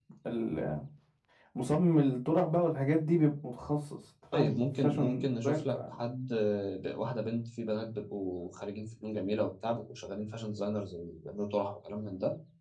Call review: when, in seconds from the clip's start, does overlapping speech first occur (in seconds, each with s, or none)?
4.3 s